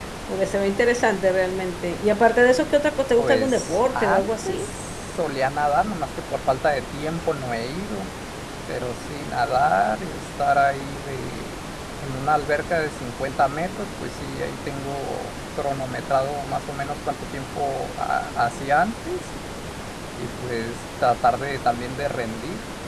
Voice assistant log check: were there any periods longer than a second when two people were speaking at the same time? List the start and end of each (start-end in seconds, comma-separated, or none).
3.2-4.7